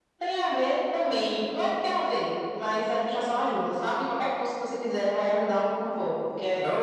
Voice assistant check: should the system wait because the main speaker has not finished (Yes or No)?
No